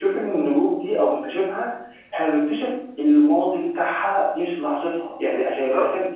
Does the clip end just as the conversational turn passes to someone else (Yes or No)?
No